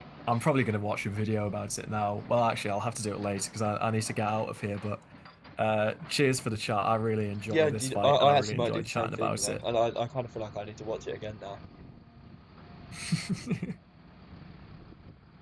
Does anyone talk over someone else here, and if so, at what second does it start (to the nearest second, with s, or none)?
8 s